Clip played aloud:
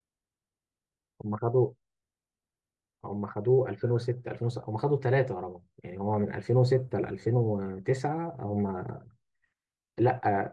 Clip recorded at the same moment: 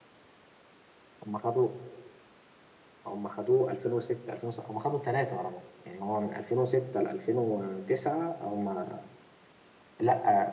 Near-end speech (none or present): none